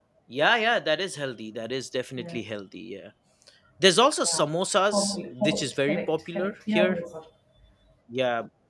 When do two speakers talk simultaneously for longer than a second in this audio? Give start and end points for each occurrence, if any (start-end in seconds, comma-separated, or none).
4.9-7.0